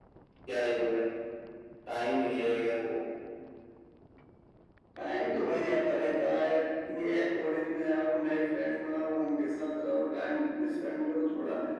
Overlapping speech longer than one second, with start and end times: none

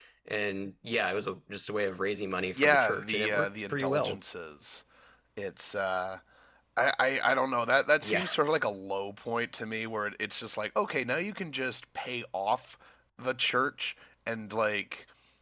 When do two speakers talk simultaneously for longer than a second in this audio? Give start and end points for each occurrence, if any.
2.6-4.2

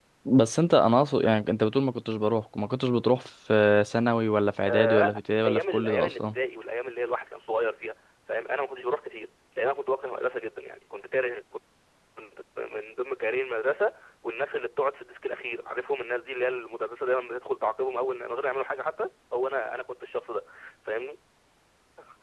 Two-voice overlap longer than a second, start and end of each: 4.7-6.4

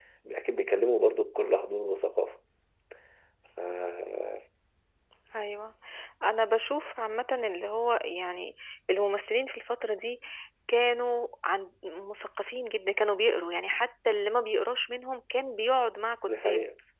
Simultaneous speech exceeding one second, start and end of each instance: none

